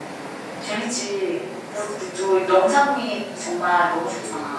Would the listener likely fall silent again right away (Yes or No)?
No